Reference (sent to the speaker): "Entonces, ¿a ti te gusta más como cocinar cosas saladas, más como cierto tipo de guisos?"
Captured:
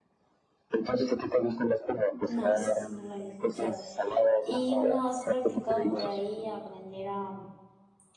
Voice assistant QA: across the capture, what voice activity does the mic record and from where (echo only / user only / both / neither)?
both